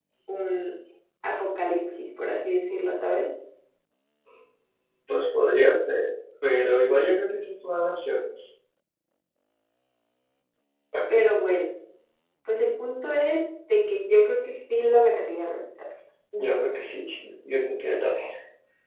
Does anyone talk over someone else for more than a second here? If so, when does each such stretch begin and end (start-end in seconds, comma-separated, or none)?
none